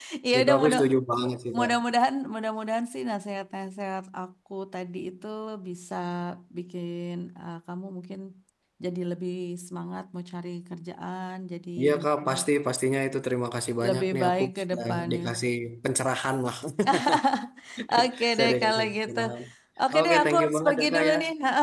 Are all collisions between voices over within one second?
No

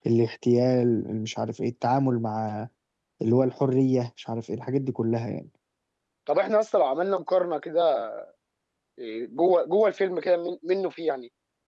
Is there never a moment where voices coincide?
Yes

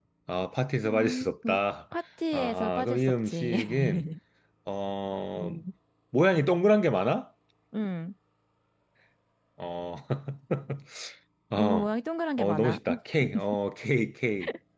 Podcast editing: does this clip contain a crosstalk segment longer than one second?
Yes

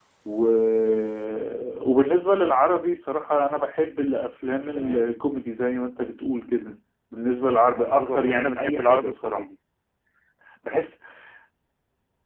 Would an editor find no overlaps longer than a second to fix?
No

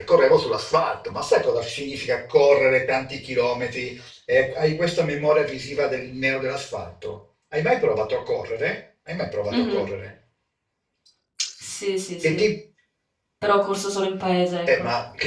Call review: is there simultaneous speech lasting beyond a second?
No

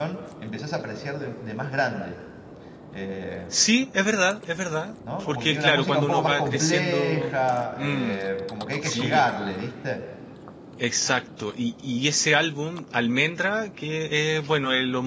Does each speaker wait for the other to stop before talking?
No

